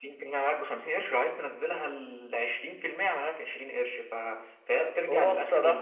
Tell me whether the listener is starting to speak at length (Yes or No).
Yes